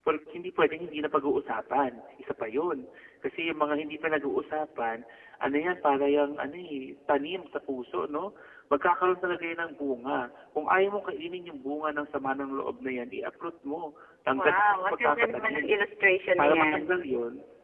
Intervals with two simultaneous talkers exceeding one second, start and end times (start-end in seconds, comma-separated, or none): 14.4-15.7